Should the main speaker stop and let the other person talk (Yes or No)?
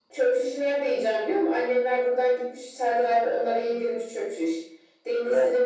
No